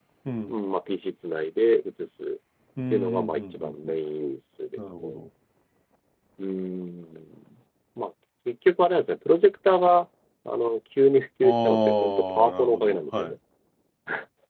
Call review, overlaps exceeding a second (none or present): present